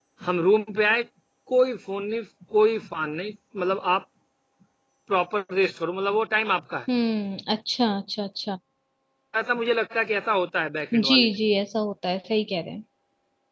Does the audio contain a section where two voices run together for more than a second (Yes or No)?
No